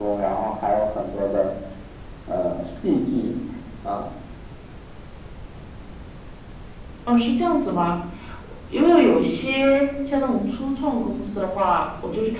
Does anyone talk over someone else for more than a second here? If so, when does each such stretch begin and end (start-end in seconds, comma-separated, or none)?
none